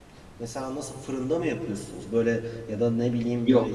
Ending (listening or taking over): listening